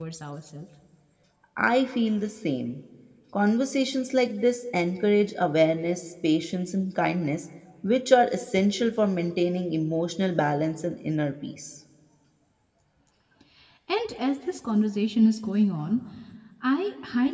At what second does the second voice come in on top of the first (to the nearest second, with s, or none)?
none